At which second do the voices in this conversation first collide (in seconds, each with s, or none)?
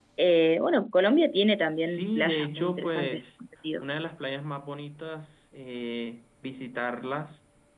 1.8 s